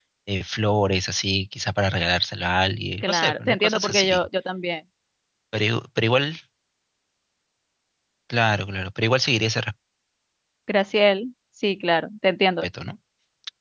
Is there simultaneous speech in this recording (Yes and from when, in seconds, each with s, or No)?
Yes, from 3.0 s